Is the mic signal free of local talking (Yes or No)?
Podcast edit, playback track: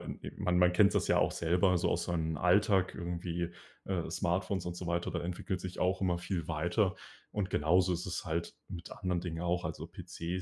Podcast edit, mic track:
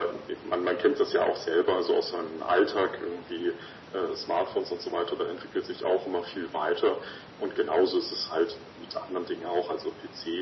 Yes